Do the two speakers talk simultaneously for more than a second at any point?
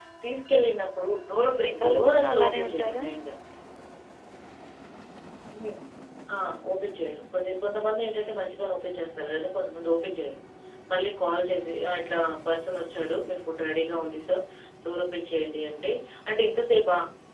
Yes, from 1.3 s

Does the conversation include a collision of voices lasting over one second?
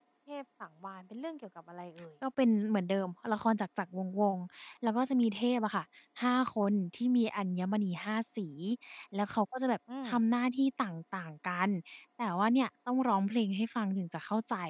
No

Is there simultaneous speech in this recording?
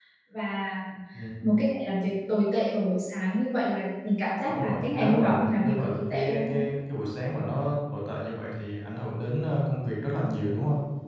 Yes, from 4.5 s

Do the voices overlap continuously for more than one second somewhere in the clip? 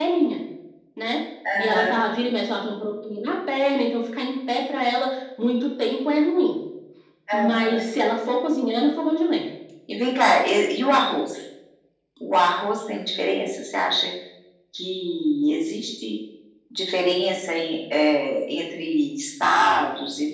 No

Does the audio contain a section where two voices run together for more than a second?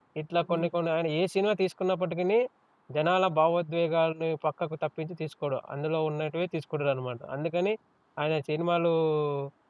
No

